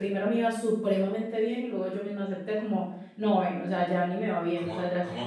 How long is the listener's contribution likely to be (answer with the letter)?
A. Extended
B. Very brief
A